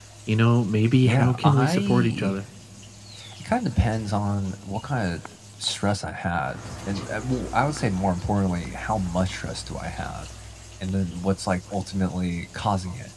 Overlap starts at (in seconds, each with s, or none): 1.0 s